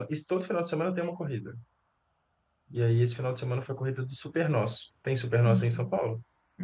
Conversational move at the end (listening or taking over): taking over